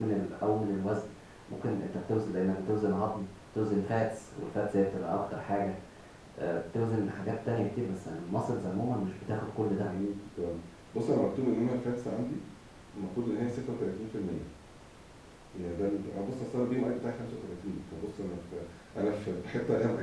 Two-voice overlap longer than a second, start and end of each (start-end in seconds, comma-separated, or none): none